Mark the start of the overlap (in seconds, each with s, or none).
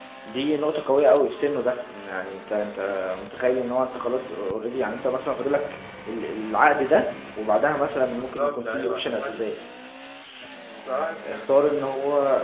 8.0 s